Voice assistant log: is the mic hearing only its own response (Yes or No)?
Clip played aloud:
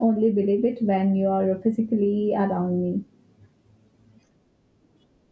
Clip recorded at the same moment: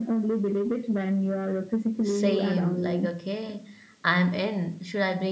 No